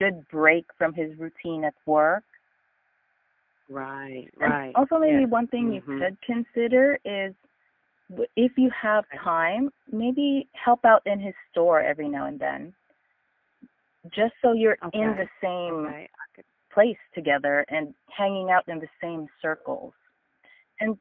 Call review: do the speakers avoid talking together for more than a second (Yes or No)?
No